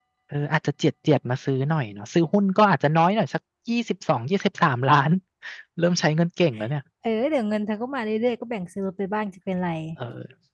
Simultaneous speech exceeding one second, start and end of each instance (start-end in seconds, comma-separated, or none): none